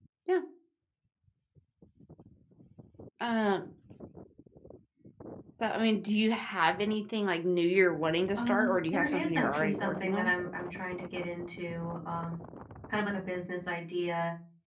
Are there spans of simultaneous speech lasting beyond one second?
Yes, from 8.4 s

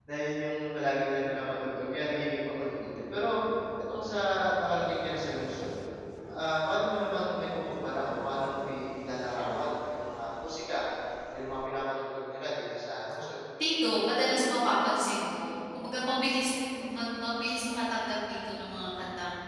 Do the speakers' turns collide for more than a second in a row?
No

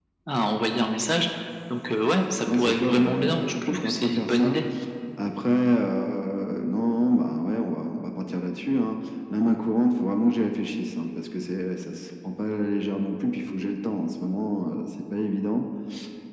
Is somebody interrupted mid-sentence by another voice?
Yes, from 2.5 s

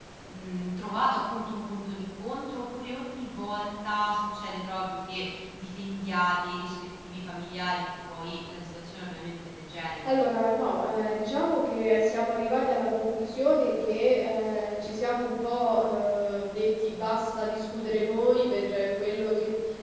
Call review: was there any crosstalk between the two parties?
No

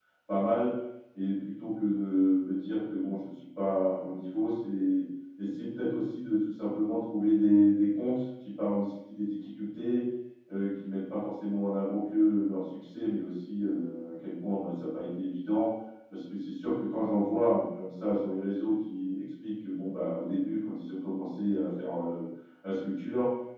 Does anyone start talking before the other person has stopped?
No

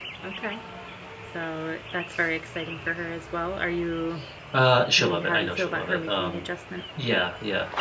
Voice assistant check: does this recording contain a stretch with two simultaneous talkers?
Yes, from 5.0 s

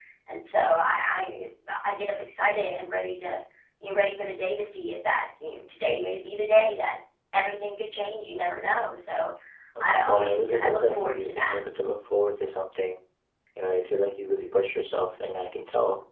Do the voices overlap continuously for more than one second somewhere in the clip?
Yes, from 9.8 s

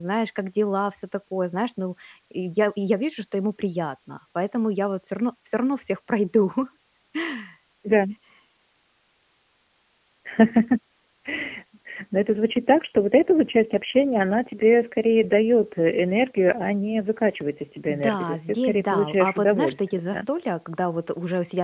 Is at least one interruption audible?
Yes, from 17.9 s

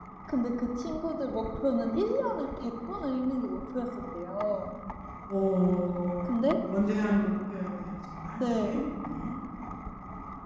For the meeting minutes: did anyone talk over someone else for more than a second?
No

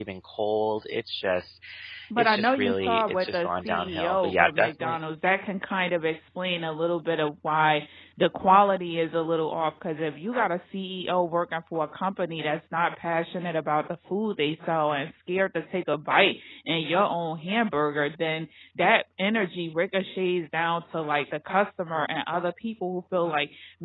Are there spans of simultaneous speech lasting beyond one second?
Yes, from 2.2 s

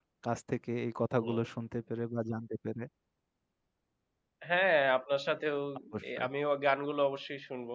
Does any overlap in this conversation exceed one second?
No

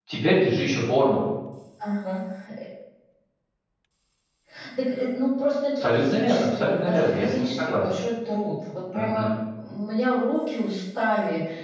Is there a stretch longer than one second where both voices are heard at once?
Yes, from 5.8 s

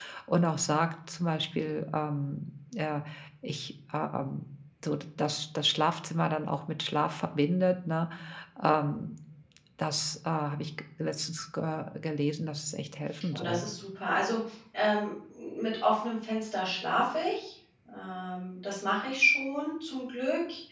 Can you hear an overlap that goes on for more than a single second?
No

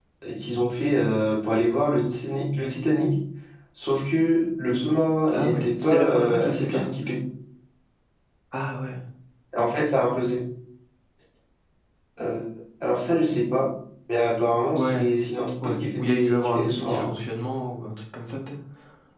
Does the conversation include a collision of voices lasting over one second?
Yes, from 5.3 s

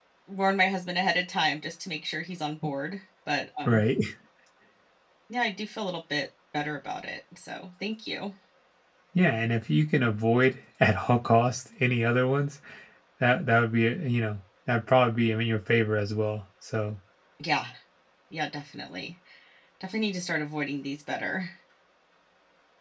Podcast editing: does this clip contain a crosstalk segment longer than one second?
No

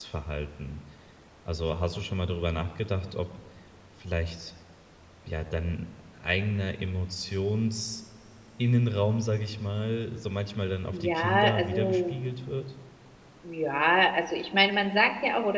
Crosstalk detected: Yes, from 10.9 s

